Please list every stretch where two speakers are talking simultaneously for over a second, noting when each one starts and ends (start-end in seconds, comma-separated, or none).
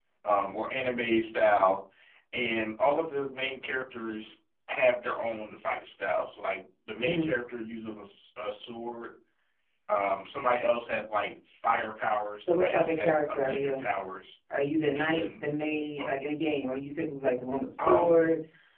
12.4-13.9